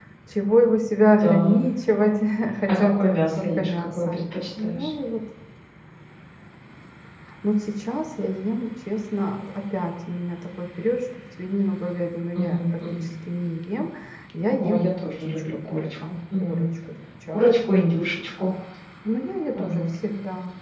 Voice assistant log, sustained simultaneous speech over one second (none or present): present